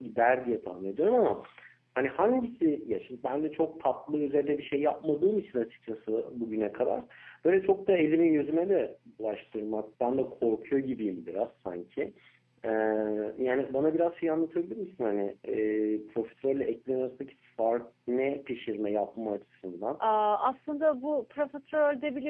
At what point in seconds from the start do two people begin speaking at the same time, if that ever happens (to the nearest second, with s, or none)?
none